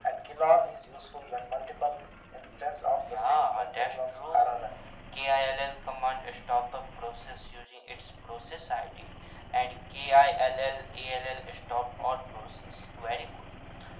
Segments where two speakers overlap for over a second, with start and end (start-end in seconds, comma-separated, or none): 3.1-4.6